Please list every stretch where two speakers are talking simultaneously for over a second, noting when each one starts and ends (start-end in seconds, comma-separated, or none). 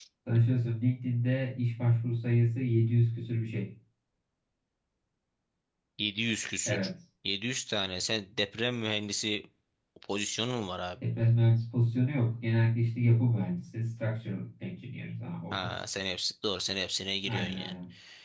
none